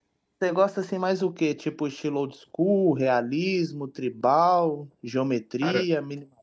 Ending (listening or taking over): listening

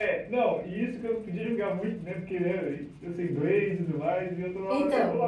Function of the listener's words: listening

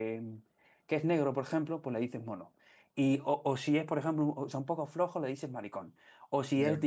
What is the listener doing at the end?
listening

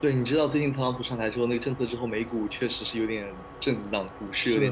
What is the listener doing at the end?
taking over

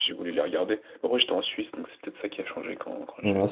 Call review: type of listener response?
taking over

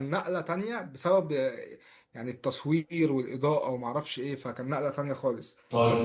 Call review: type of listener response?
listening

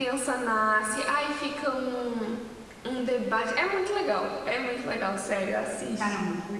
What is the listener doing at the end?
taking over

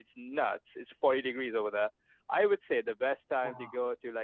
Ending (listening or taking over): listening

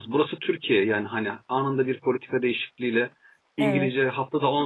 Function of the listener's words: listening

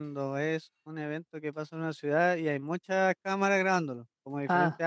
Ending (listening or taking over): listening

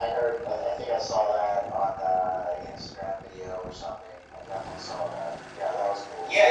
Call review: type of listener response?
taking over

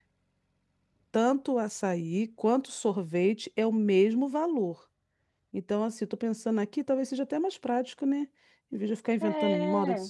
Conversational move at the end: listening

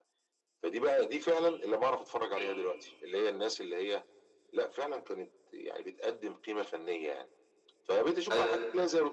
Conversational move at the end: listening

